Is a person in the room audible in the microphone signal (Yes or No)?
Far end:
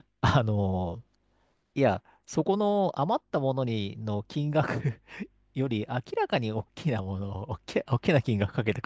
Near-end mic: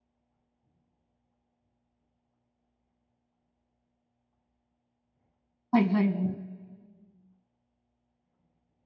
Yes